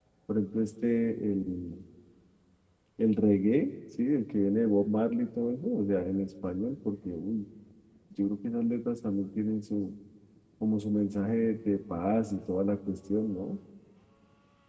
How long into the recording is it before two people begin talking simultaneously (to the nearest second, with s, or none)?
none